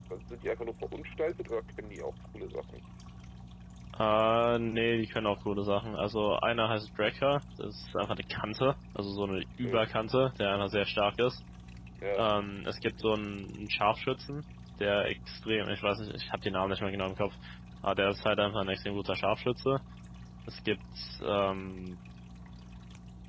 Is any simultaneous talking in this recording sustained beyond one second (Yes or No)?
No